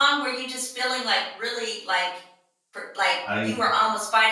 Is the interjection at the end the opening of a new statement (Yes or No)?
No